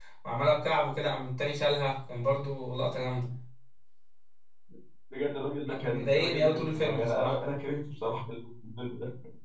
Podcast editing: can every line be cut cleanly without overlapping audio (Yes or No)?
No